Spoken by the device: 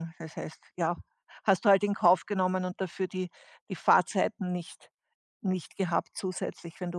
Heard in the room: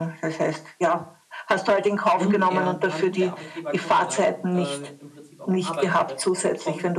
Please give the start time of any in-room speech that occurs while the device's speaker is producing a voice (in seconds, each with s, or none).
2.2 s